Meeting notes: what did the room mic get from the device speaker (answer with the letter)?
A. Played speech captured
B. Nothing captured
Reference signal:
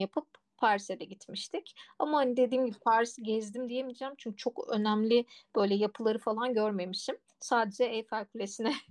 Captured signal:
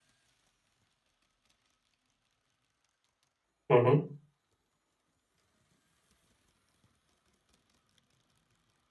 B